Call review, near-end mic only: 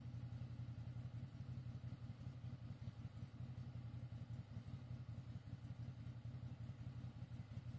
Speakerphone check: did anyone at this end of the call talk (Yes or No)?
No